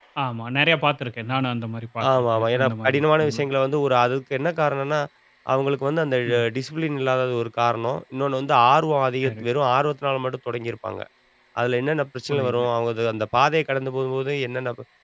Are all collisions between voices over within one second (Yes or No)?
No